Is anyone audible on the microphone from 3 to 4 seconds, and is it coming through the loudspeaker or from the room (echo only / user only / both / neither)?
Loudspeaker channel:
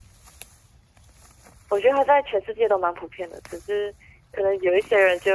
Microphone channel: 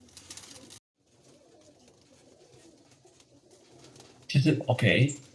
neither